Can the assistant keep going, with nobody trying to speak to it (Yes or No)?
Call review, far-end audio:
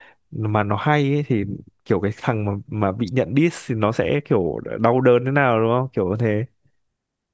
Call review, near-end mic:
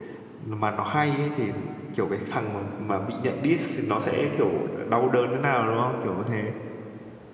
Yes